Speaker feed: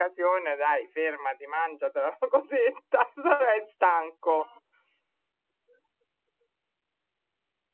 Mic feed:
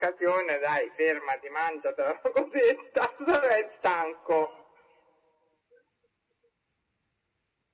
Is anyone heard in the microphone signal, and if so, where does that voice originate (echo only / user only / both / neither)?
echo only